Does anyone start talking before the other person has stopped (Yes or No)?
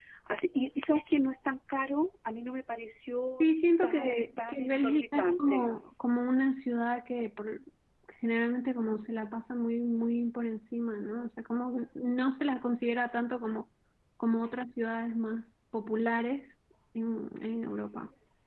Yes